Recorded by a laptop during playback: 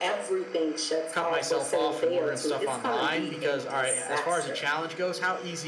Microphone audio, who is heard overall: both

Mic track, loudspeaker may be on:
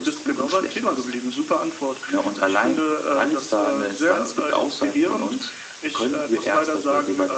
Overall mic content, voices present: echo only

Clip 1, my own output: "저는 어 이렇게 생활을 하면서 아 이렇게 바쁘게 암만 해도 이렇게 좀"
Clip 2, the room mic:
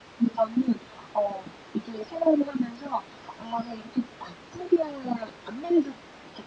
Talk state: echo only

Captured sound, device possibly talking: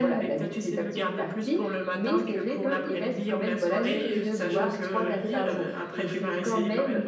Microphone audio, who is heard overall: both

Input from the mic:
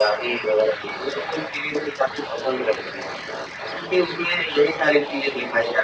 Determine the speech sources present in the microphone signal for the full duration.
echo only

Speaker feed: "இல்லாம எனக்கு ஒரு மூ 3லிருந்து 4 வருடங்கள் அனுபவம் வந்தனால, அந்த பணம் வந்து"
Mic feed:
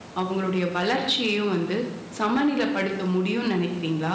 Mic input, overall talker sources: user only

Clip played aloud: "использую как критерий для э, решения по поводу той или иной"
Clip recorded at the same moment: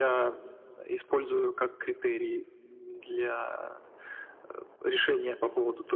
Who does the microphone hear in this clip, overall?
echo only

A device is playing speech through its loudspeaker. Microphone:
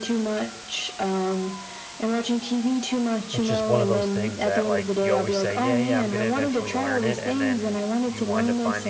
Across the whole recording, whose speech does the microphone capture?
both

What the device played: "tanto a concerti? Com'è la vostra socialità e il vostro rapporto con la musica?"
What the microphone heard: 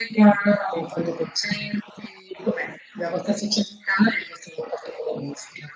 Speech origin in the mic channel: echo only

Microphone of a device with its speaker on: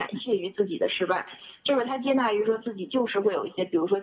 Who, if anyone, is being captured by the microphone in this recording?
echo only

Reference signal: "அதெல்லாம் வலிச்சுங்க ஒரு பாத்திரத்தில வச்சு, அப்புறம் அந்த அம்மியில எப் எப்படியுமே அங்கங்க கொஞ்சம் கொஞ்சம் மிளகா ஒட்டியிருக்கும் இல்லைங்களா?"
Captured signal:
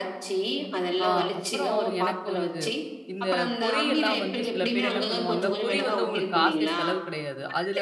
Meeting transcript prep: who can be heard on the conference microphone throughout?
both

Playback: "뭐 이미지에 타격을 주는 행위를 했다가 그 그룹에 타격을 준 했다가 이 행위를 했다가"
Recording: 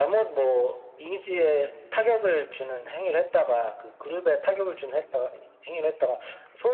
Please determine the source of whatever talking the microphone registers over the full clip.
echo only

